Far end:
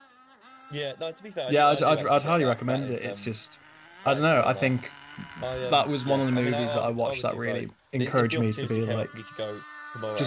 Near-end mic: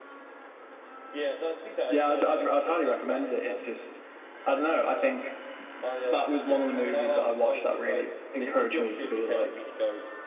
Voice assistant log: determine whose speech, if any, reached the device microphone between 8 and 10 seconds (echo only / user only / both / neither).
echo only